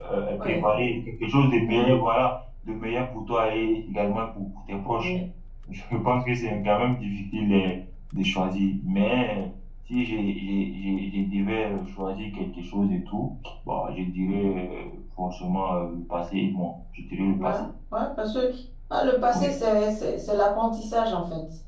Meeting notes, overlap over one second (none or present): none